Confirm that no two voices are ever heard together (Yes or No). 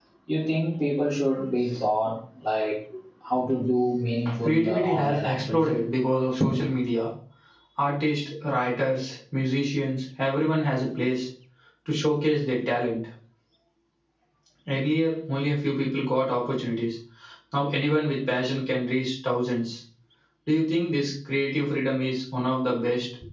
No